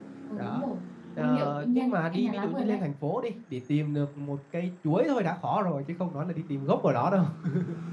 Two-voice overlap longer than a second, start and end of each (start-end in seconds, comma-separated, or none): 1.2-2.8